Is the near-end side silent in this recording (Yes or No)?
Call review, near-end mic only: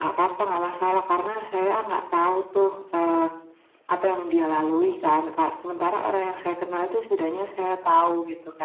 Yes